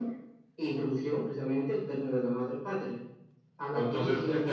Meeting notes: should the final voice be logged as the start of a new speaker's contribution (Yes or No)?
Yes